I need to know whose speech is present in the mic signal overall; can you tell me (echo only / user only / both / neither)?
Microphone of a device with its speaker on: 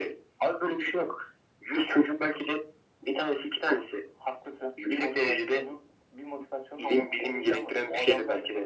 echo only